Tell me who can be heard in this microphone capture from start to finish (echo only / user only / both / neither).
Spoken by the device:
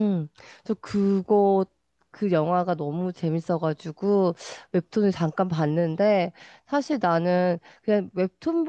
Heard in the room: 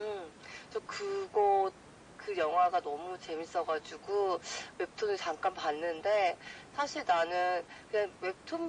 echo only